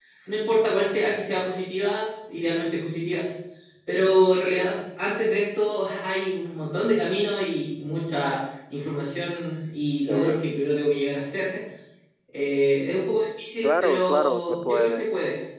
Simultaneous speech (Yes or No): Yes